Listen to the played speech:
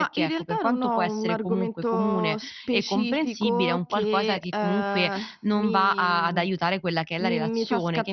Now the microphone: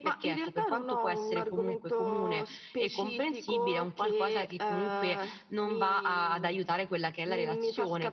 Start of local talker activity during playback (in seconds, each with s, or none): none